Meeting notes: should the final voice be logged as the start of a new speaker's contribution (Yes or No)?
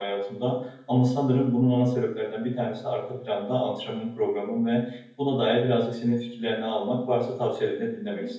Yes